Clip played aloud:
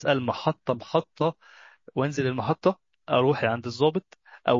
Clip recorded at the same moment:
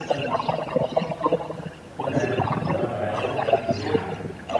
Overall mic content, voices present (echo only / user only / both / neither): both